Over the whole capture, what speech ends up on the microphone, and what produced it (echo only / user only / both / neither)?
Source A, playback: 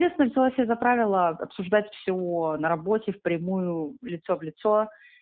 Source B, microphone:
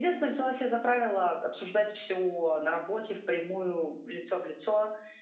echo only